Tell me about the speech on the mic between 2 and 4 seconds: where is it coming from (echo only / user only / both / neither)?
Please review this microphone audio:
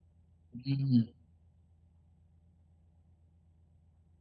neither